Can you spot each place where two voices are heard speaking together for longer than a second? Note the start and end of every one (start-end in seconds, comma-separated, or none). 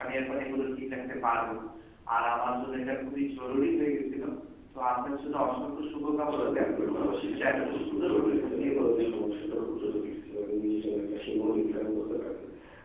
7.2-9.1